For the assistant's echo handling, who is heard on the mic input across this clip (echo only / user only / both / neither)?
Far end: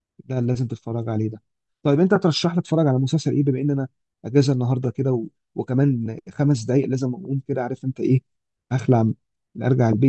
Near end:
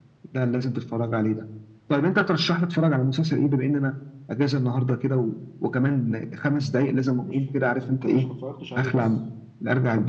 both